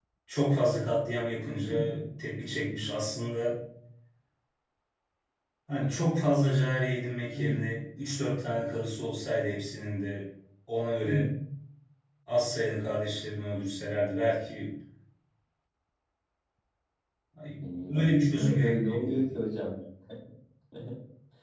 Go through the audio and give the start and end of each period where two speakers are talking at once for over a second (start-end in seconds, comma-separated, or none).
17.9-19.3